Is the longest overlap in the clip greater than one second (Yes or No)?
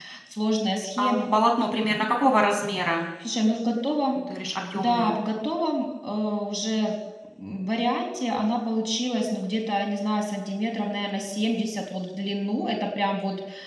No